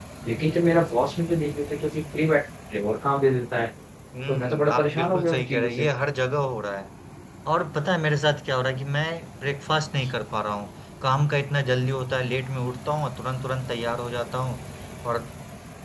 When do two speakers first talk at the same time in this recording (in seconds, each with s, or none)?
4.3 s